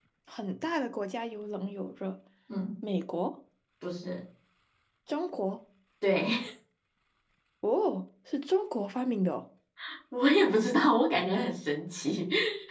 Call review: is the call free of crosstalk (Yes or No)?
Yes